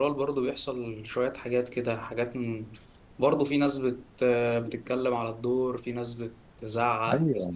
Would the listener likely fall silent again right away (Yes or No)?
No